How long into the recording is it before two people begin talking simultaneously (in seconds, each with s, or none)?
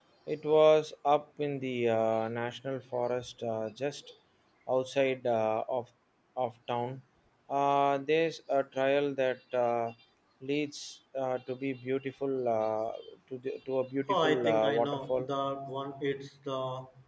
14.1 s